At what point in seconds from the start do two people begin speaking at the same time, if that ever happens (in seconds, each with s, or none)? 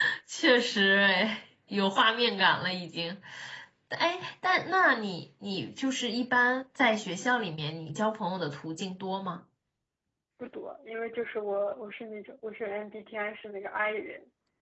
none